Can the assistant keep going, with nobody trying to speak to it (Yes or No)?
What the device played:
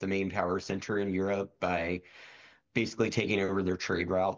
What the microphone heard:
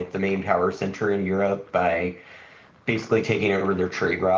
Yes